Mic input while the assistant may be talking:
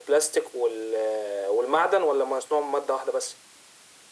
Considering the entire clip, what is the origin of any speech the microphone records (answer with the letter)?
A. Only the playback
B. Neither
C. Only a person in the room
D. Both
A